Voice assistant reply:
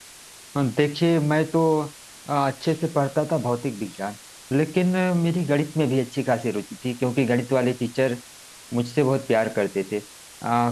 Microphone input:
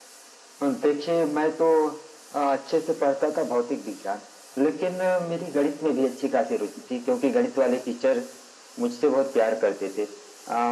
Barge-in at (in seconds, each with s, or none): none